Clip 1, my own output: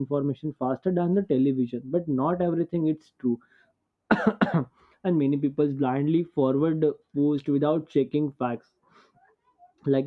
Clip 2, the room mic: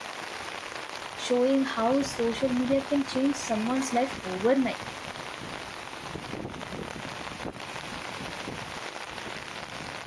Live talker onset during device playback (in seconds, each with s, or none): 1.1 s